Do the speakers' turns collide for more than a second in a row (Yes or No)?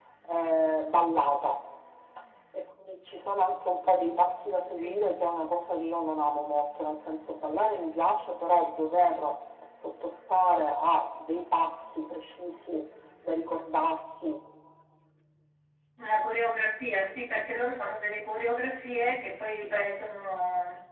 No